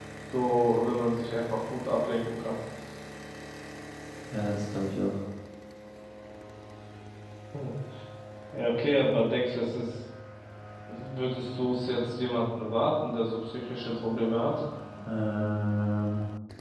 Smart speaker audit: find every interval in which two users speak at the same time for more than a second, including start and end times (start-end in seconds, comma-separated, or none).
none